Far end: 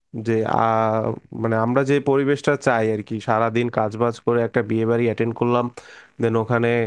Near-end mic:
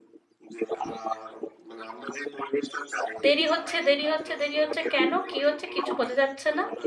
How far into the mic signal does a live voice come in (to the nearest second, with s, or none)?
3 s